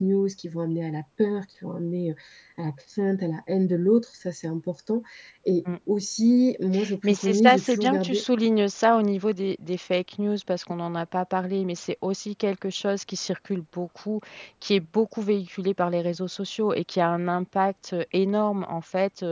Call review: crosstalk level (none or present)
present